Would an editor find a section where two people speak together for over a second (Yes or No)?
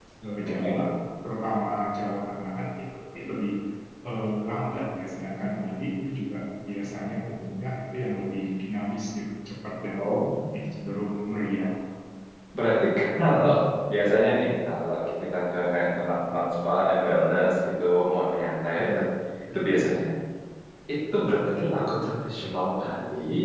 No